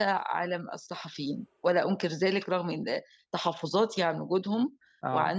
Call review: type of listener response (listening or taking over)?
listening